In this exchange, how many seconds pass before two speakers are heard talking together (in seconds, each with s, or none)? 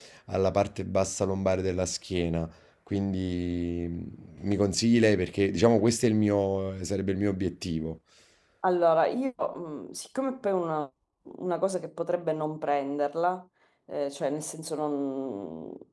none